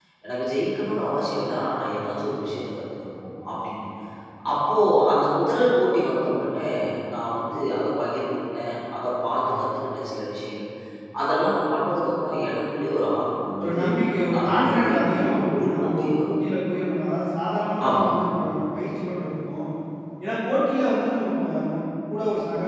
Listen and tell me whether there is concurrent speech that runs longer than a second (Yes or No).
Yes